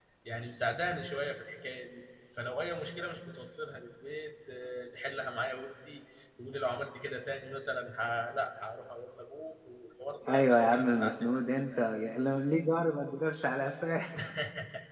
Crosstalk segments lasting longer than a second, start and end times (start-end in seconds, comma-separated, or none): 10.3-11.7